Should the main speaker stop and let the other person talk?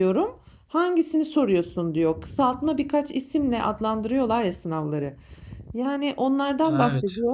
No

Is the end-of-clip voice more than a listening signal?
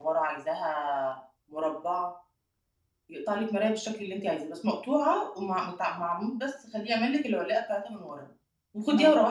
No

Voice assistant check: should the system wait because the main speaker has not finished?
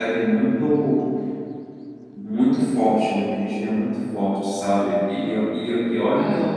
Yes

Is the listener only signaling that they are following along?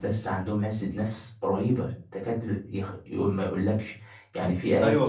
No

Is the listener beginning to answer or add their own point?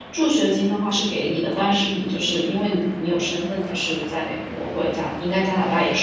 No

